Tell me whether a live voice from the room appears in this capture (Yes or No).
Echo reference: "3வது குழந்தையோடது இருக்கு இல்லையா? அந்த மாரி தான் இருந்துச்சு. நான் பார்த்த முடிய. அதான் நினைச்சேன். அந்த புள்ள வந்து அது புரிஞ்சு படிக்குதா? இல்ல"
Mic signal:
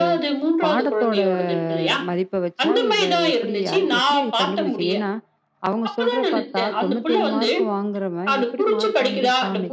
Yes